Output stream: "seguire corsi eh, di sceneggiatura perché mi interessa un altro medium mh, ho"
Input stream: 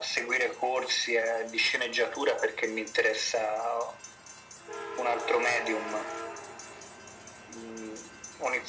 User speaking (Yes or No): No